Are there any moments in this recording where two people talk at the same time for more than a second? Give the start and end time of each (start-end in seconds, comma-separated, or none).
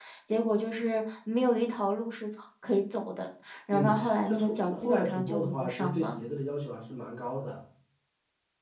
3.7-6.2